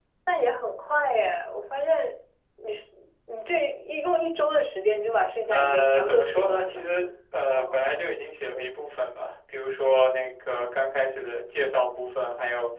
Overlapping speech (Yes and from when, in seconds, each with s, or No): Yes, from 5.5 s